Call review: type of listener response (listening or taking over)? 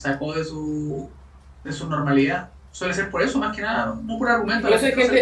taking over